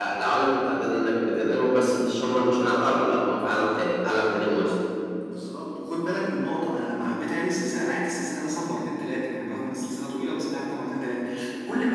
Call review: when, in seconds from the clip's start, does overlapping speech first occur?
none

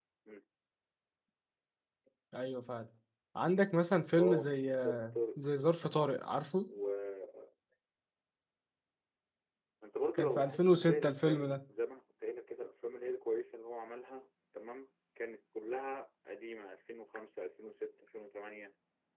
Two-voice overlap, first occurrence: 4.2 s

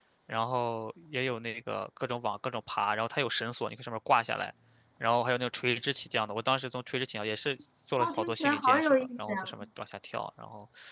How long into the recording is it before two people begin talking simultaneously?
8.0 s

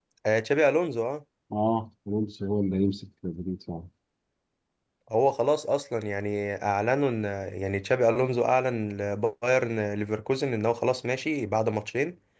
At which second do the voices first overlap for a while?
none

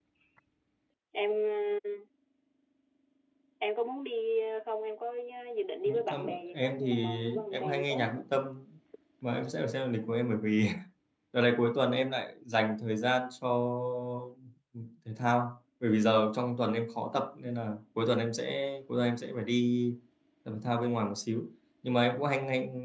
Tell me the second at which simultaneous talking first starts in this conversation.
5.9 s

